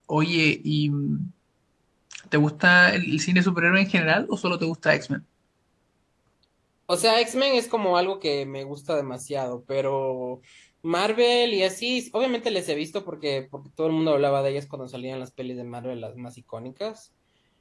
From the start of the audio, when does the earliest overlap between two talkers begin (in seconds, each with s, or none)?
none